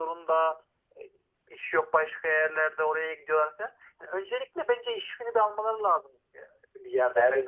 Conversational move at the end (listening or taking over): taking over